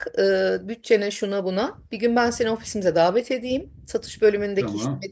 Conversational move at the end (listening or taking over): listening